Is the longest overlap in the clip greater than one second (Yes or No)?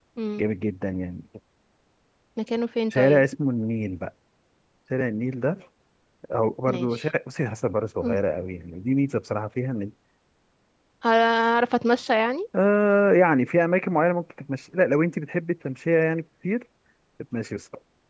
No